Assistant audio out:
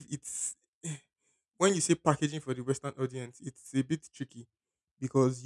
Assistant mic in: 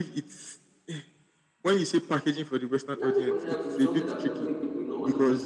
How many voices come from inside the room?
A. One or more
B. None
A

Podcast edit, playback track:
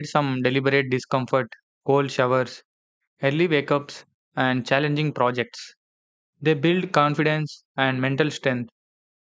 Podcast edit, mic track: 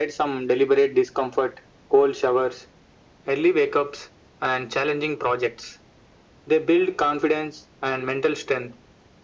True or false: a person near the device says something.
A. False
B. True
A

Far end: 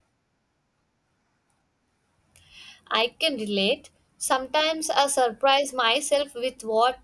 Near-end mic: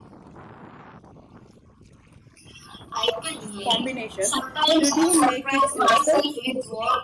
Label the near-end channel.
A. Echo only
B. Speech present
B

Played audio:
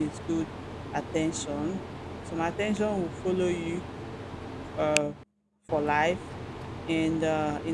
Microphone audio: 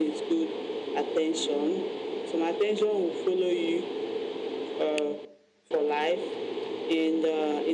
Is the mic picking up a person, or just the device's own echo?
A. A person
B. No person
B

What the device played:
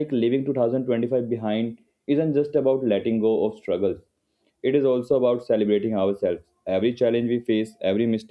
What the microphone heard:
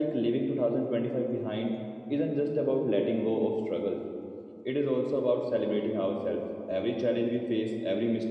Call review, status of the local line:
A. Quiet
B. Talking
A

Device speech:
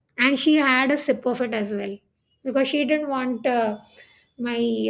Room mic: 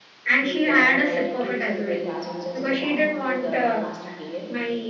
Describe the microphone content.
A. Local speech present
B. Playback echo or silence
A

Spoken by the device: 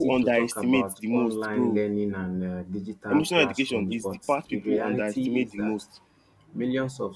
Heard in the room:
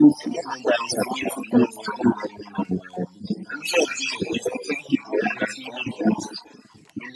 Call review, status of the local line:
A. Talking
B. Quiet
B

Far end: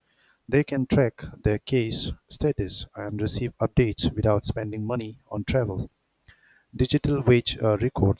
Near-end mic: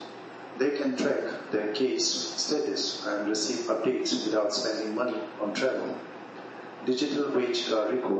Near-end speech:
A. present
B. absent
B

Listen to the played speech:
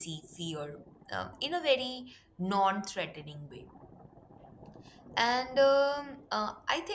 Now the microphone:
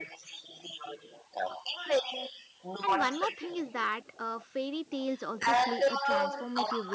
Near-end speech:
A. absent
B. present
B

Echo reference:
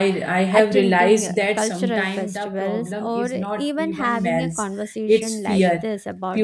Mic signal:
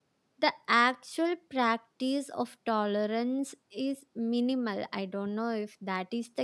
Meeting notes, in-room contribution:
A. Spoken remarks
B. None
A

